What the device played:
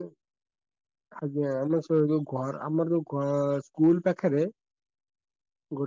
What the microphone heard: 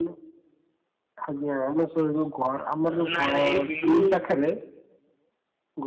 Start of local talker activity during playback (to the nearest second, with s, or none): 3 s